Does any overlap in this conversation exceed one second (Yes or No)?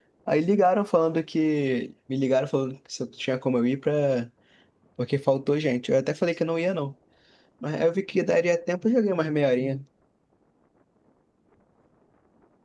No